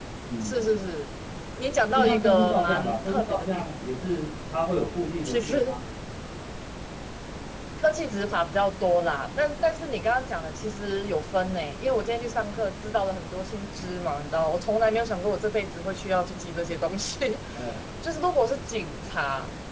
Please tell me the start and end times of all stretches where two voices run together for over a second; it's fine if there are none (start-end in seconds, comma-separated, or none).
2.0-3.7